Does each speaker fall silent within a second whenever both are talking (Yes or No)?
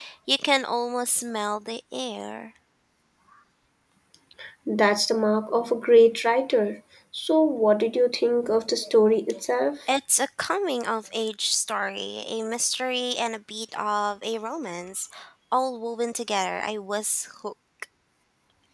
Yes